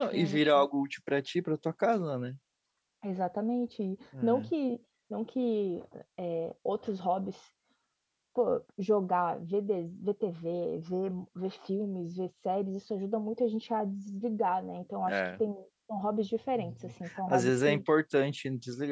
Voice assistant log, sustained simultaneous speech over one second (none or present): present